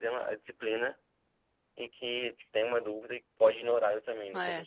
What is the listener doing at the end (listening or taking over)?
taking over